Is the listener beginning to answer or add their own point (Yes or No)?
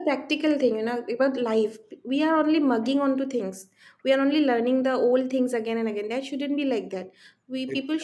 No